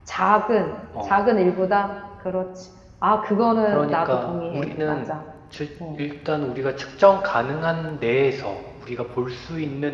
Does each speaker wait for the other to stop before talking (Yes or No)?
No